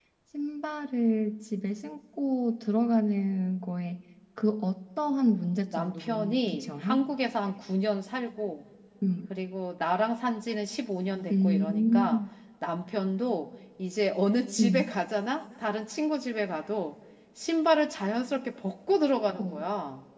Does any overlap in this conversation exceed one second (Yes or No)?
Yes